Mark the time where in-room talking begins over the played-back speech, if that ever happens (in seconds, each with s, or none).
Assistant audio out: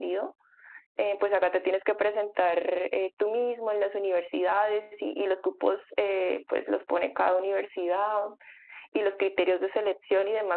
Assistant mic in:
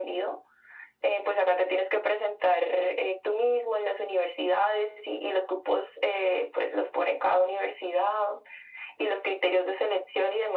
none